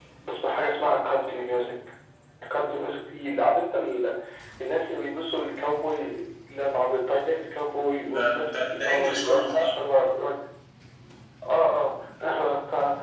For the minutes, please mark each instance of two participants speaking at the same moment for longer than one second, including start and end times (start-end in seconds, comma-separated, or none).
8.1-9.7